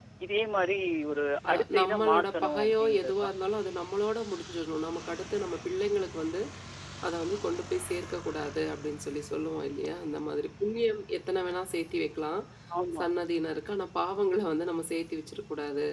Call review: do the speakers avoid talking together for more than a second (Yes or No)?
No